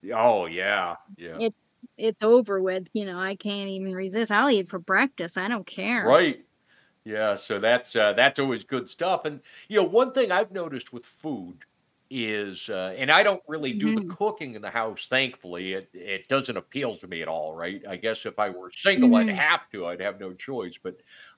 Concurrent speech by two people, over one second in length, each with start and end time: none

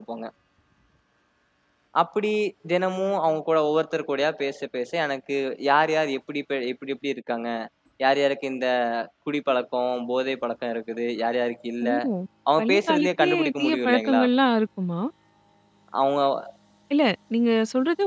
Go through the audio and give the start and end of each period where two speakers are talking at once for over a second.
12.6-14.2

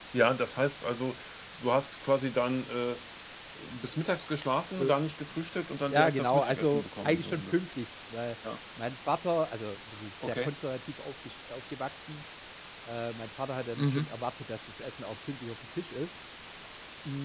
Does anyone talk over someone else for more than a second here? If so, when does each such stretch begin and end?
5.9-7.5

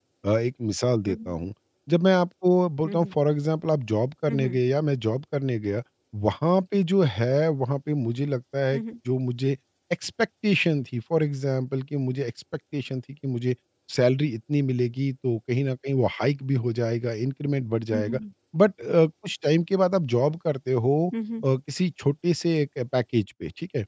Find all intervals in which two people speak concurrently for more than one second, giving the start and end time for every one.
none

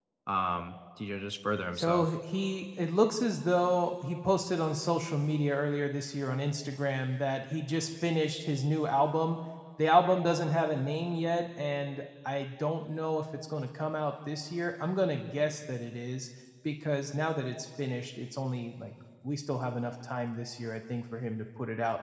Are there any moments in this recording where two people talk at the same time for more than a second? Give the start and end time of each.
none

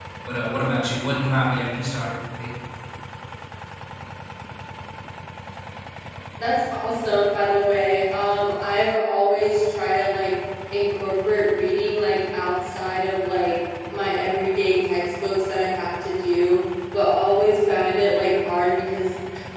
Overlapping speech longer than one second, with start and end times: none

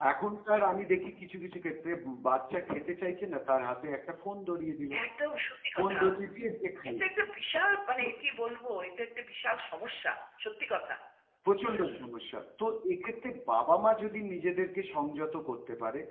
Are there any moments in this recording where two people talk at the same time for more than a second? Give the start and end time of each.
none

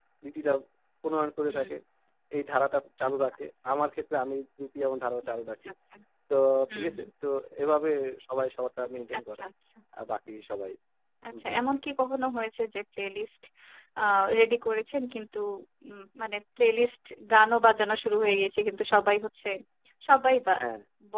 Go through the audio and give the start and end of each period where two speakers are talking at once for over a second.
none

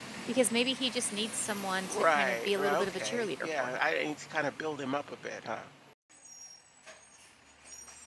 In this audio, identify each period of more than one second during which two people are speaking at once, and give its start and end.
1.9-3.8

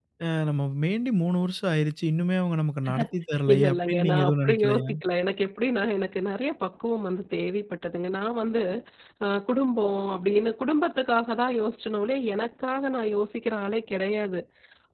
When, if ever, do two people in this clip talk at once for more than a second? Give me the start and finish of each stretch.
3.5-4.9

